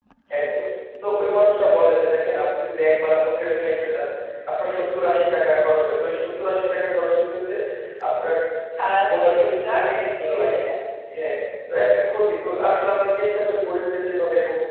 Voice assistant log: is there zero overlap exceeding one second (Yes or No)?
No